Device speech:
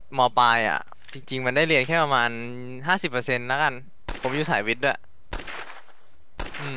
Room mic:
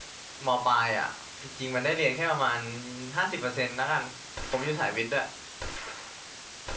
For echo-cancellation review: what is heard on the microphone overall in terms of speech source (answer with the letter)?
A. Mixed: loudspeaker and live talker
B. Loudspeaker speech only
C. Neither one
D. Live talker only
B